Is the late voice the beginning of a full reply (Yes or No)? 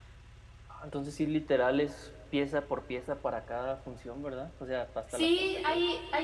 Yes